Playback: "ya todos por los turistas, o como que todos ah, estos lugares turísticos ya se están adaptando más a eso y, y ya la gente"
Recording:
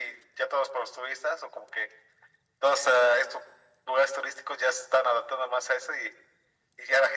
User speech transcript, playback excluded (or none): none